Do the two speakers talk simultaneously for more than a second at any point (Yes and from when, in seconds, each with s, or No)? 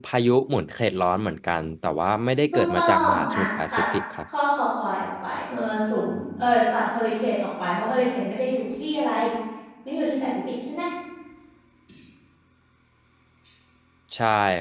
Yes, from 2.5 s